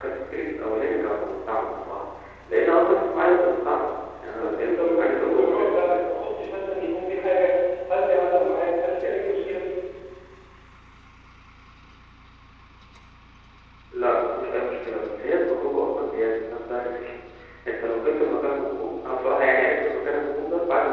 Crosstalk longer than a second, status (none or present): present